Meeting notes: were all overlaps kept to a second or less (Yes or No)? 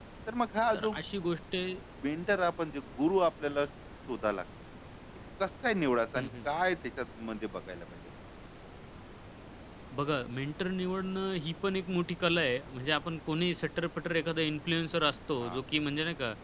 Yes